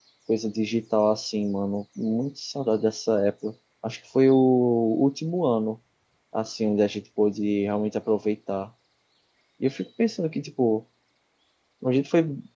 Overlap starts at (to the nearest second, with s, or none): none